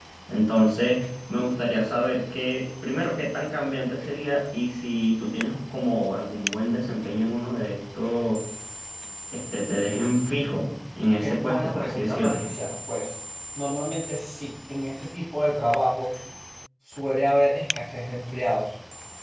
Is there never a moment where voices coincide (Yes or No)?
No